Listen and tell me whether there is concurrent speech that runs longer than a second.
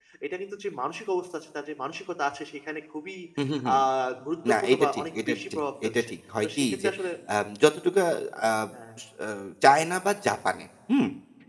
Yes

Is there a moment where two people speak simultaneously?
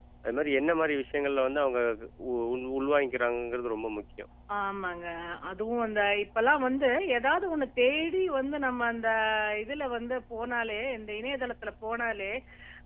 No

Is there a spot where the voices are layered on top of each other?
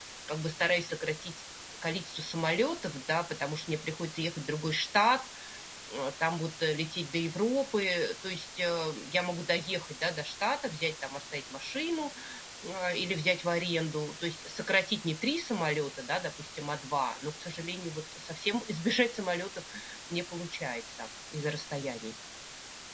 No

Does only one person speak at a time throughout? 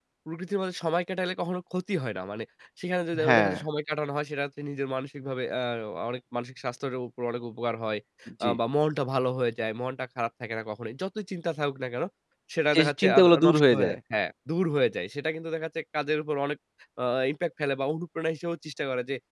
No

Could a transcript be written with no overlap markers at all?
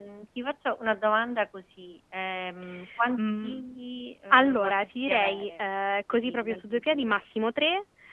No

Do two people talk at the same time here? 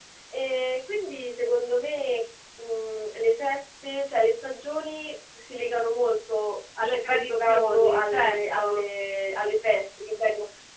Yes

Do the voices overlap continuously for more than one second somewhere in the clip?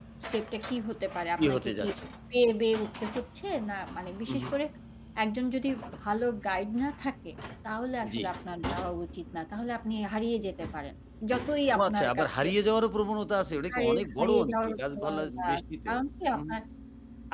Yes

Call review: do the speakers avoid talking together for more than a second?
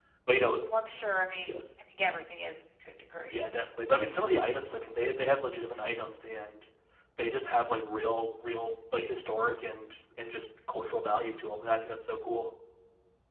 Yes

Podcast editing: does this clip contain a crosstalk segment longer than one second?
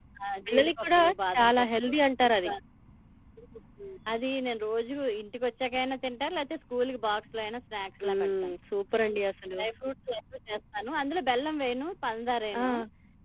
Yes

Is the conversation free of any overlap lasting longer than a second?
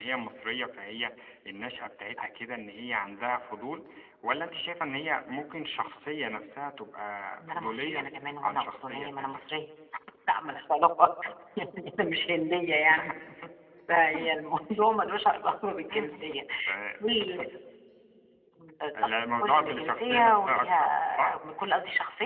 No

